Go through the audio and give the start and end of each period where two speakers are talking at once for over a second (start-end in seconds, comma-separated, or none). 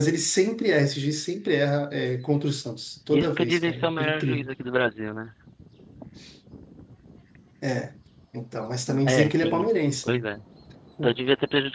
3.1-4.5, 9.1-10.2